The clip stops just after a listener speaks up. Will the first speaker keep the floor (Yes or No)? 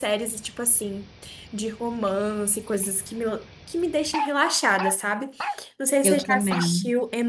Yes